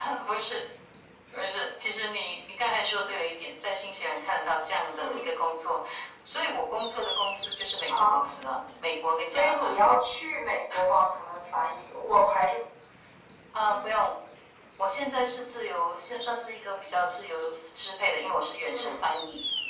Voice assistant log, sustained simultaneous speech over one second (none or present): none